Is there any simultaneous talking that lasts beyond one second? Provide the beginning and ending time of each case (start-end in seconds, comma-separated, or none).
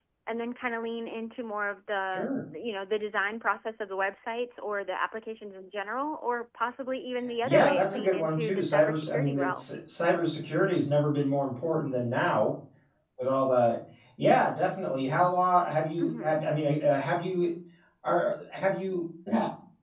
7.4-9.6